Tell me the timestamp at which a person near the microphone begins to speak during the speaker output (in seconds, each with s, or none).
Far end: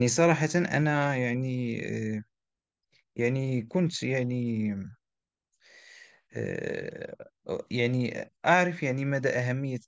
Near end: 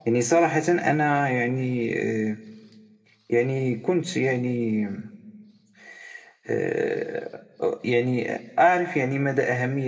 none